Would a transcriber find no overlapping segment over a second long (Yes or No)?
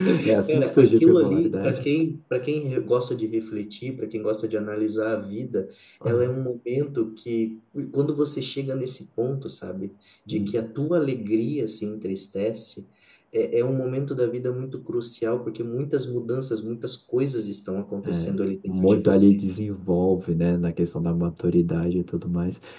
No